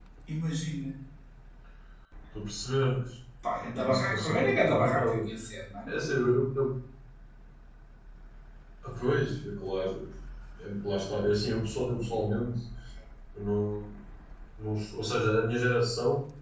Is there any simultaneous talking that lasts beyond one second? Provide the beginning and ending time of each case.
3.8-5.2

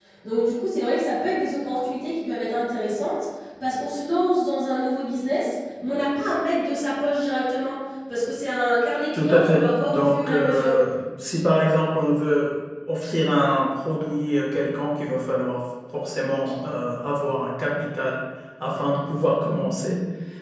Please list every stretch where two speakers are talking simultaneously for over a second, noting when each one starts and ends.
9.2-10.7

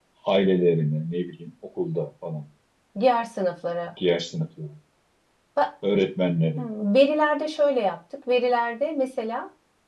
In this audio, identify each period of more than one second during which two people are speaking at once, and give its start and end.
none

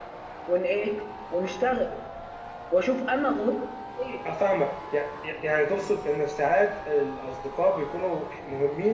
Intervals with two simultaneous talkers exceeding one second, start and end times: none

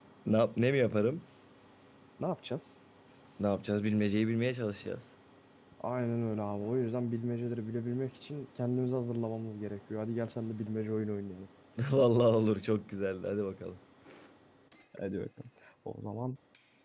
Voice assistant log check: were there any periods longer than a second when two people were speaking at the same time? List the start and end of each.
none

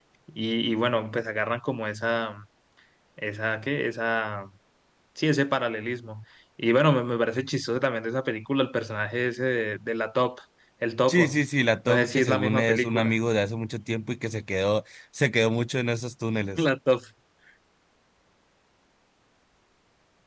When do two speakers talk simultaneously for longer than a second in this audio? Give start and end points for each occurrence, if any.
11.9-13.2

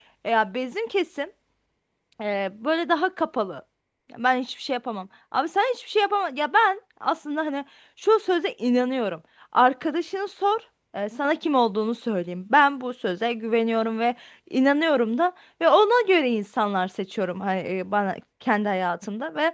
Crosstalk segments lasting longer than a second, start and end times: none

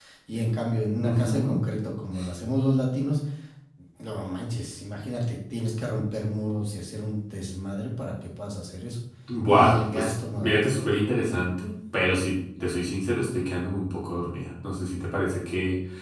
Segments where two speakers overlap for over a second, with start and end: 9.5-10.7

